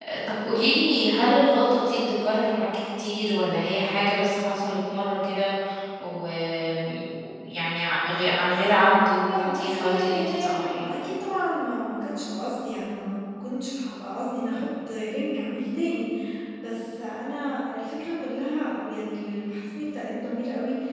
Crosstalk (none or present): present